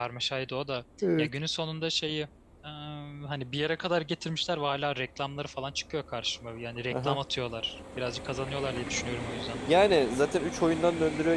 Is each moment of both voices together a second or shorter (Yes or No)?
Yes